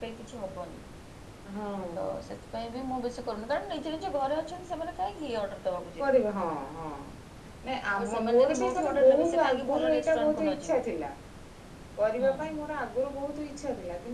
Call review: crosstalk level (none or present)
present